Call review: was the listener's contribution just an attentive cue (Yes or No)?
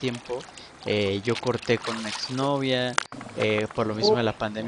Yes